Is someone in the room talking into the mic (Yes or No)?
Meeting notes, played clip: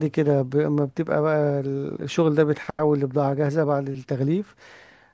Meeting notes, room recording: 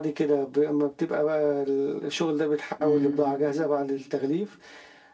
Yes